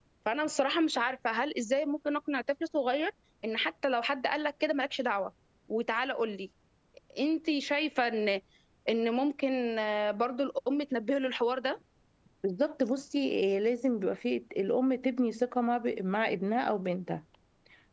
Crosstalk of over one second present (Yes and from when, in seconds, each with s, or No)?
No